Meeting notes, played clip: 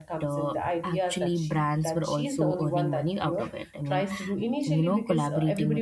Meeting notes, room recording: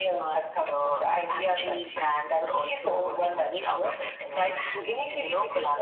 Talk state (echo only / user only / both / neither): echo only